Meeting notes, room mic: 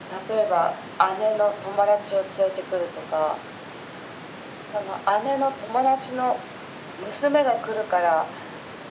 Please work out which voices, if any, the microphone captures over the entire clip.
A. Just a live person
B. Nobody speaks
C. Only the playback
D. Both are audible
C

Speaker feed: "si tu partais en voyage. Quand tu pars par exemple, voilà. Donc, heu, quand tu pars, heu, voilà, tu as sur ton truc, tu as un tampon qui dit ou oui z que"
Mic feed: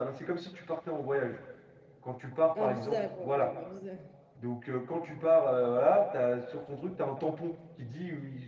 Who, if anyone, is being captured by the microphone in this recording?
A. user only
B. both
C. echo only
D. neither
B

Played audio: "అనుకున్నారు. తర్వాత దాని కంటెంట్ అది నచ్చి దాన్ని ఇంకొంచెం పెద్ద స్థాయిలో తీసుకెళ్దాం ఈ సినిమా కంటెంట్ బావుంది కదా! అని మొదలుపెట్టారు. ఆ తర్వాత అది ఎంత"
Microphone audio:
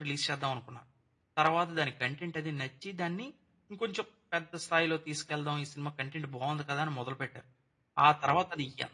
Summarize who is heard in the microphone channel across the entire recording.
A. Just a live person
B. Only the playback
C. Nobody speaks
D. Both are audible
B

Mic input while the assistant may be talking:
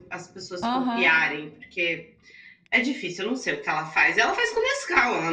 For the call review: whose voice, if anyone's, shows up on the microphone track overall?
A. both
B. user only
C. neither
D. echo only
A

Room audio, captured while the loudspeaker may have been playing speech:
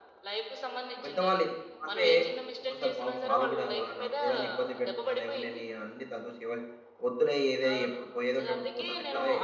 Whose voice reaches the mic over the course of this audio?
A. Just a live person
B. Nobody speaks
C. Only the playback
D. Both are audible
D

